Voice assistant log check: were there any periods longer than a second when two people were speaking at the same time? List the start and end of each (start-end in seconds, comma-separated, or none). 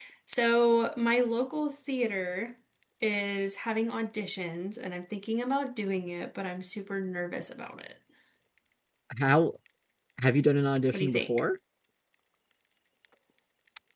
none